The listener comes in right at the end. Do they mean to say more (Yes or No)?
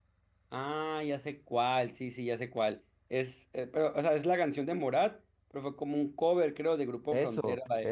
Yes